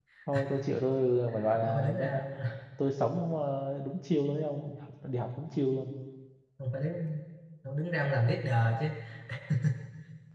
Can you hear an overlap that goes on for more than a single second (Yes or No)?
No